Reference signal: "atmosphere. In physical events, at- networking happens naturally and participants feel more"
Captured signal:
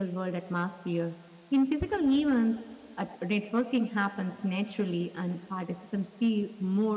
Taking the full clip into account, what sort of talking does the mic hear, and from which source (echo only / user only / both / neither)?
echo only